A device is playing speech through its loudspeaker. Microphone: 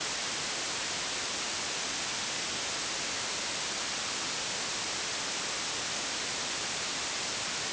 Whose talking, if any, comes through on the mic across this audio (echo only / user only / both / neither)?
neither